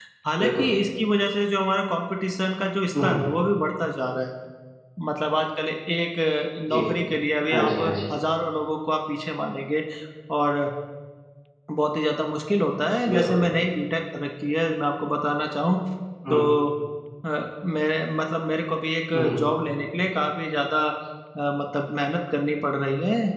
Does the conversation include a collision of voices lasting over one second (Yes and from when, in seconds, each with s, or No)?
No